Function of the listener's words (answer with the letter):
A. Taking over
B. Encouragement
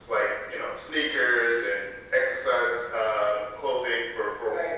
B